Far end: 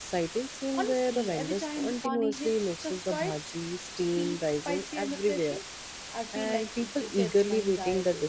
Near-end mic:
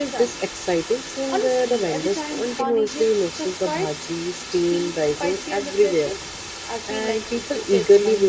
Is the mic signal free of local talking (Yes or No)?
Yes